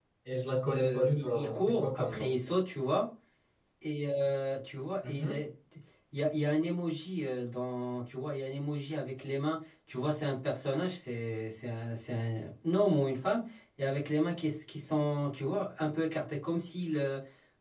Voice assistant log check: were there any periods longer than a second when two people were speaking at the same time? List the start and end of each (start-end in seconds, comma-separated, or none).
0.7-2.4